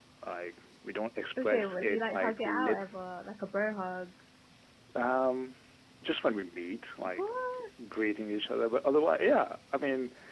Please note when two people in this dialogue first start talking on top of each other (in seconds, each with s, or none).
1.4 s